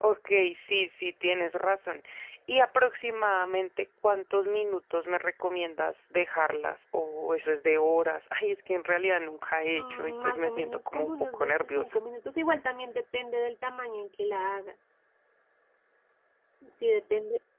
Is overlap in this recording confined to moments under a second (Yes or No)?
No